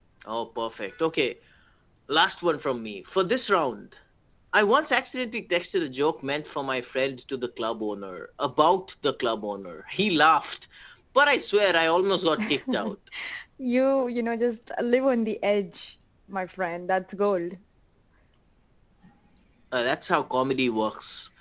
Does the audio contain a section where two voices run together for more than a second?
No

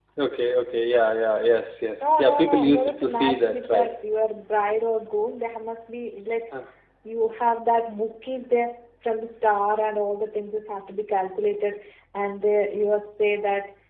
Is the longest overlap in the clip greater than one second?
Yes, from 2.0 s

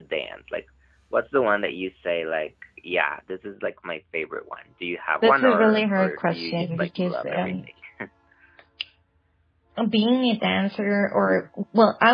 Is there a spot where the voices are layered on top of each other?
Yes, from 5.2 s

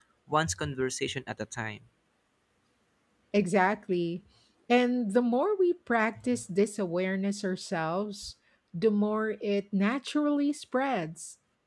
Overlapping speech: No

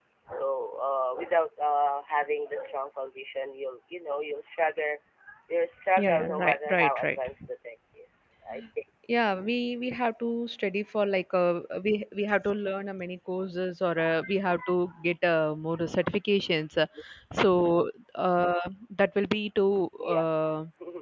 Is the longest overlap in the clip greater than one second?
Yes, from 6.0 s

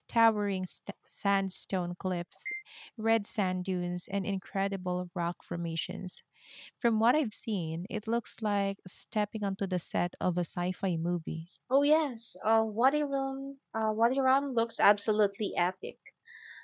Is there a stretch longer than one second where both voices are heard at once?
No

